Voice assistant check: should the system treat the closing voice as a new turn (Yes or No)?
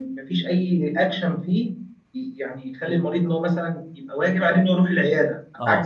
Yes